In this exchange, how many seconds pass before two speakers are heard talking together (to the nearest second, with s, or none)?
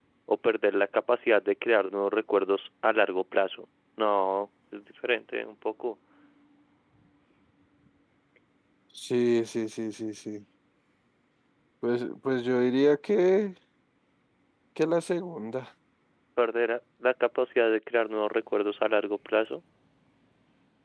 none